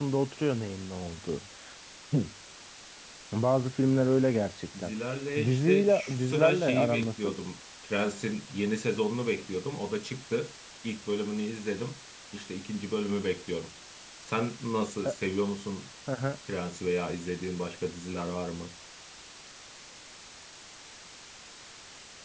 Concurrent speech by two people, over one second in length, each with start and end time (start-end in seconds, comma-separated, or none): 5.4-7.4